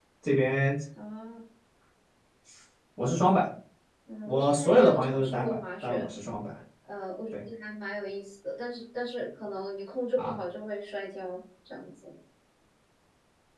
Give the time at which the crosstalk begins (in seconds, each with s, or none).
4.3 s